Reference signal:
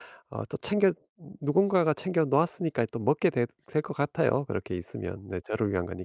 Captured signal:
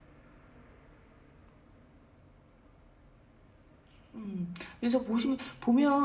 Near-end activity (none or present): present